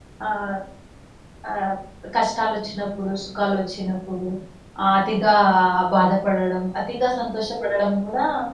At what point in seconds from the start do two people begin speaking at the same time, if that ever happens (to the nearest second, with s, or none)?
none